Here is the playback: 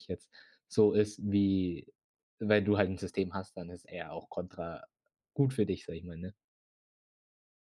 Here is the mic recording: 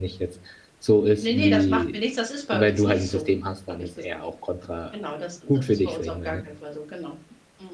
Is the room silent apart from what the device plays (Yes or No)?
No